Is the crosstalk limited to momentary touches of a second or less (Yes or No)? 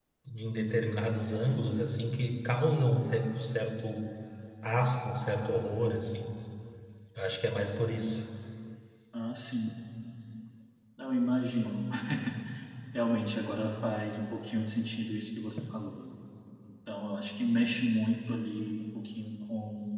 Yes